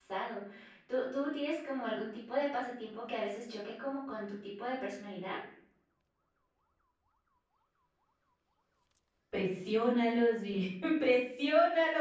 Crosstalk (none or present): none